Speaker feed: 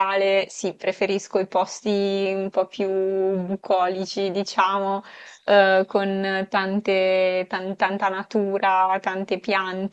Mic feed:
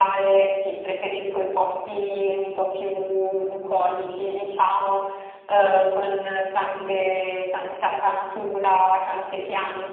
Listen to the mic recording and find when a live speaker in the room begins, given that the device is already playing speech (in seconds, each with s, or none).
none